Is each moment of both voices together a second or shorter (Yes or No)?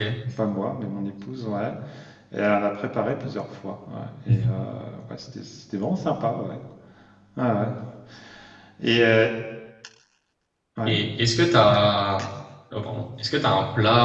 Yes